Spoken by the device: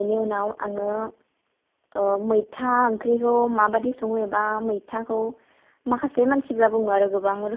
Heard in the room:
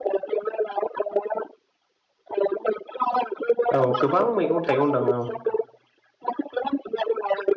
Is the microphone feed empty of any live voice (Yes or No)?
No